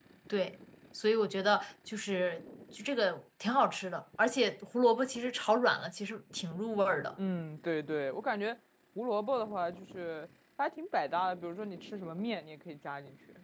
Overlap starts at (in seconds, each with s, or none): none